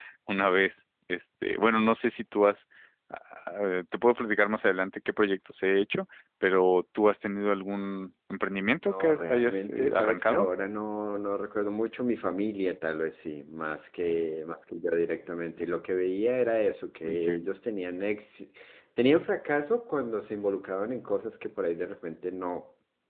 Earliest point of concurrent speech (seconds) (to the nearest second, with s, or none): 9 s